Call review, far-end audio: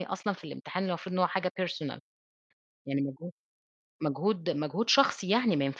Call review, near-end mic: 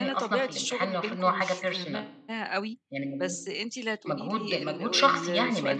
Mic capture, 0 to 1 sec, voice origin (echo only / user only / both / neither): both